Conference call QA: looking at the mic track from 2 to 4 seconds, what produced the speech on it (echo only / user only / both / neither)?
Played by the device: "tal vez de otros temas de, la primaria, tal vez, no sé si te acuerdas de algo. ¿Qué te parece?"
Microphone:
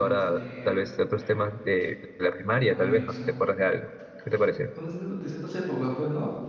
both